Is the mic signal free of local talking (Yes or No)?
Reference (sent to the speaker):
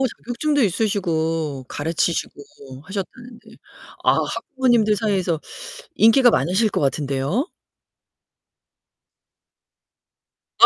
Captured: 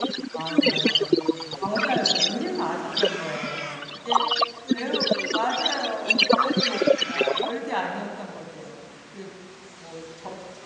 No